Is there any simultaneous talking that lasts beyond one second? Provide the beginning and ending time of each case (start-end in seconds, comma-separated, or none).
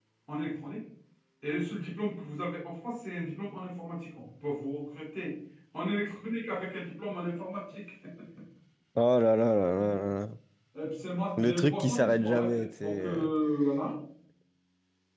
11.4-13.3